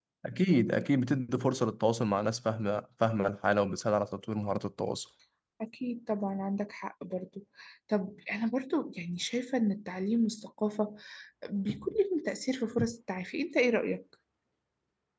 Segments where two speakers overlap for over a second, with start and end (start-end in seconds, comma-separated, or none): none